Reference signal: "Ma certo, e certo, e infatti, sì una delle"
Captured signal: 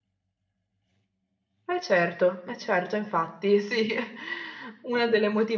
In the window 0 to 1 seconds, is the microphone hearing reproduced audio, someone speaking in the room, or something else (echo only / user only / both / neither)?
neither